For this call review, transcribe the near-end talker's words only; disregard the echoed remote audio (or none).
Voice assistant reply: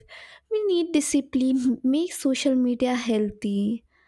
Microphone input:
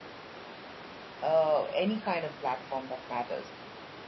uh, any kind of platform that matters.